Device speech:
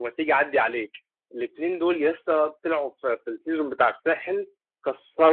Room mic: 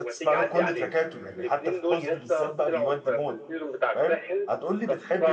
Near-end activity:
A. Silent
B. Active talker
B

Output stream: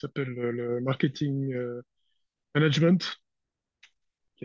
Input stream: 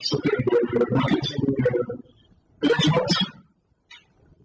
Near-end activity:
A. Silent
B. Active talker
A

